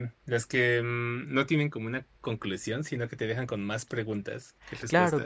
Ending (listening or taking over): taking over